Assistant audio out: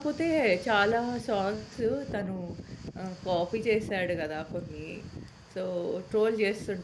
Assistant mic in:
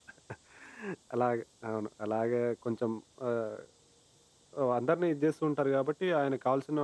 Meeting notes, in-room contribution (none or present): present